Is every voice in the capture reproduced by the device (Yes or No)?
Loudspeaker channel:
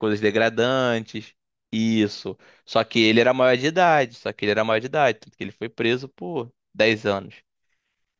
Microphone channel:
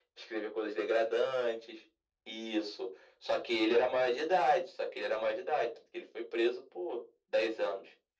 Yes